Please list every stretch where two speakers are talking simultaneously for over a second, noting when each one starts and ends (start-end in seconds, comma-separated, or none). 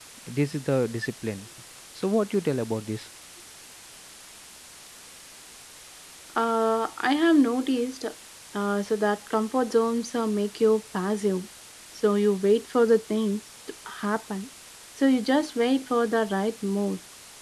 none